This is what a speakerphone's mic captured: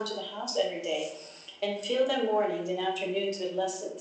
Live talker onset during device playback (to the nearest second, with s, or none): none